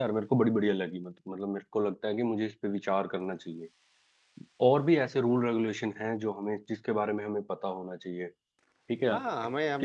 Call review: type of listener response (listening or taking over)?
taking over